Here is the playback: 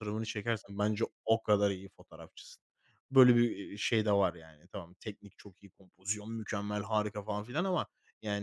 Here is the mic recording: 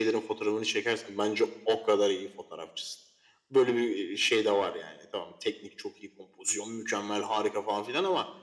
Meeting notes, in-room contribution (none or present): none